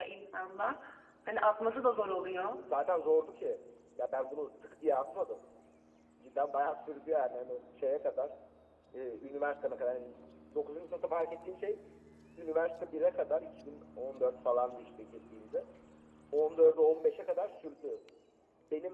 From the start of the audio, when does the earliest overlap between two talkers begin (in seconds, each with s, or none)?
none